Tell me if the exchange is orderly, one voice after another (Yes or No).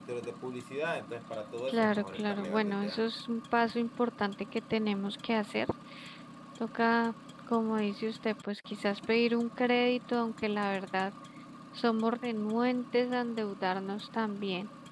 No